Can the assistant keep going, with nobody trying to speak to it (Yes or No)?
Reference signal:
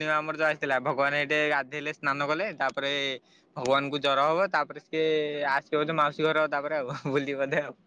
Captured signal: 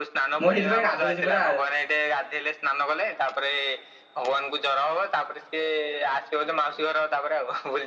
No